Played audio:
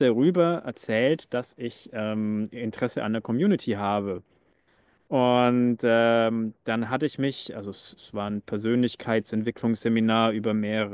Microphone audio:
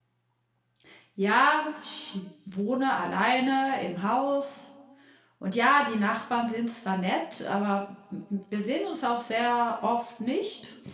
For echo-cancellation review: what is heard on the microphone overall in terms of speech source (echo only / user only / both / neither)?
user only